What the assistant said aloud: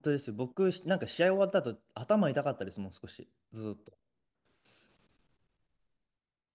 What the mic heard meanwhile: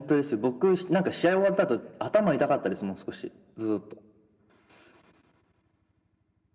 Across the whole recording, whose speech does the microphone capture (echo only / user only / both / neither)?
echo only